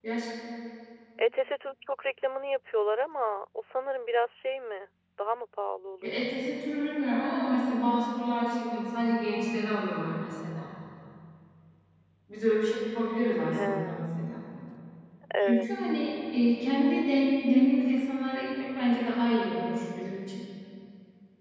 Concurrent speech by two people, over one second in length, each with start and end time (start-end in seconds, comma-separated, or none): none